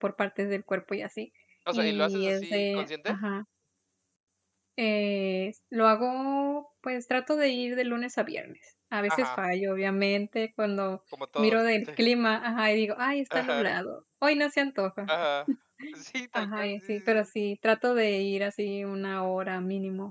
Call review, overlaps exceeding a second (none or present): present